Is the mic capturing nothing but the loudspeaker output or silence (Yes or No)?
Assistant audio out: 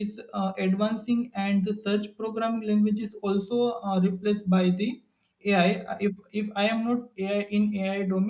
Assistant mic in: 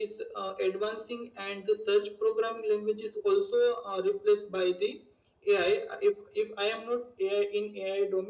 Yes